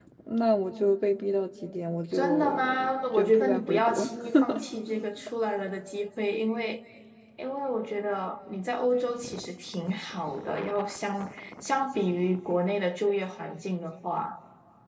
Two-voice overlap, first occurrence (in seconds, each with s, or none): 2.1 s